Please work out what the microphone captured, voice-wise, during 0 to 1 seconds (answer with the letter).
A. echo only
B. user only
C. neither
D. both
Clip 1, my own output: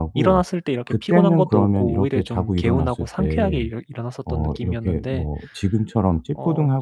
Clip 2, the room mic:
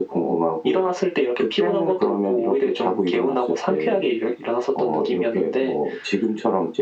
A